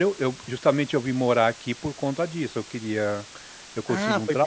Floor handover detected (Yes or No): Yes